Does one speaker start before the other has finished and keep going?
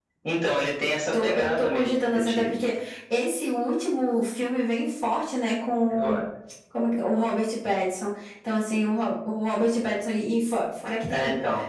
Yes, from 1.2 s

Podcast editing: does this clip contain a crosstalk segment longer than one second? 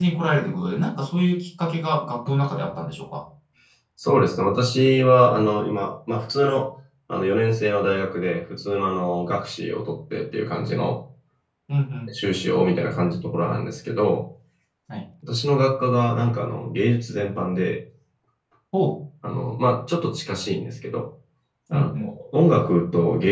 No

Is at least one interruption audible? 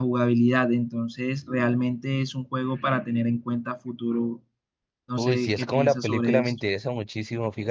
Yes, from 5.2 s

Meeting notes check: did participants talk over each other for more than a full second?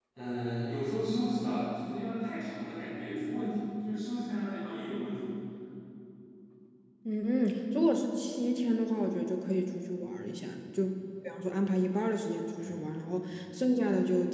No

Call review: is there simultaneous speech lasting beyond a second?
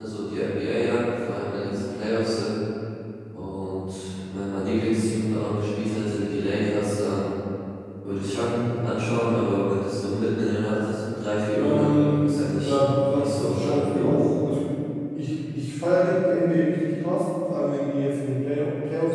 Yes, from 11.5 s

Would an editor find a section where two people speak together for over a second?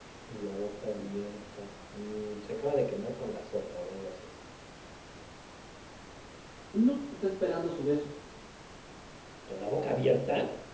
No

